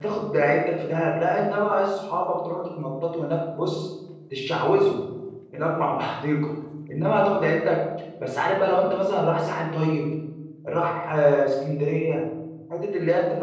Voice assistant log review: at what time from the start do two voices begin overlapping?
none

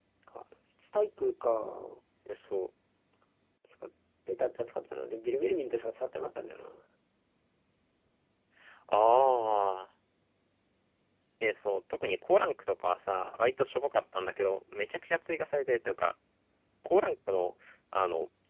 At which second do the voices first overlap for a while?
none

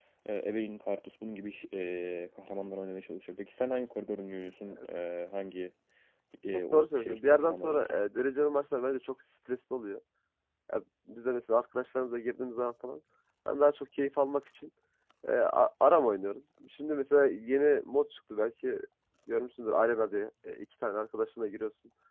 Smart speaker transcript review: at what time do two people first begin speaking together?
6.7 s

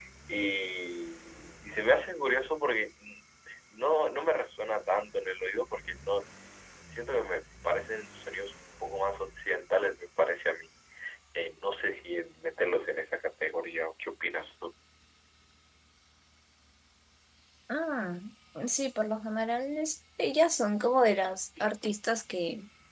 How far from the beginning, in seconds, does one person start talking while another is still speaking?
none

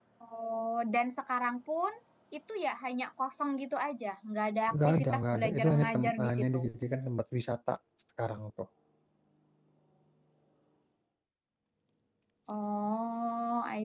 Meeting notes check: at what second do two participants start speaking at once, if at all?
4.7 s

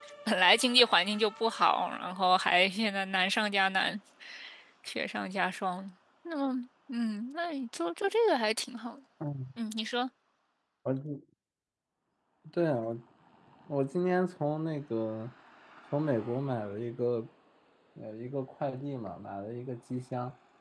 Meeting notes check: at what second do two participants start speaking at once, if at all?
none

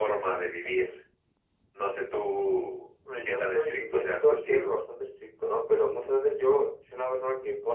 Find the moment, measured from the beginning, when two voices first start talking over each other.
3.0 s

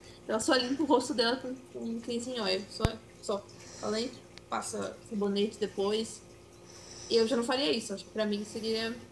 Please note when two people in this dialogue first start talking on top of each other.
none

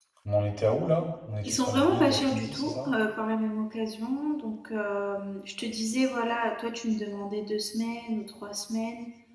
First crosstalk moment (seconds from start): 1.4 s

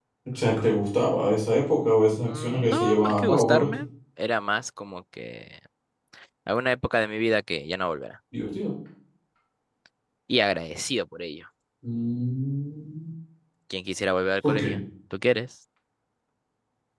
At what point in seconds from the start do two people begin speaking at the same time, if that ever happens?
2.3 s

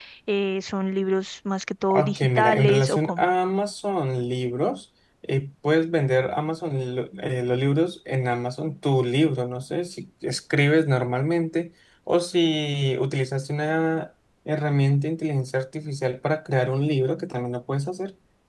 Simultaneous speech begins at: 1.9 s

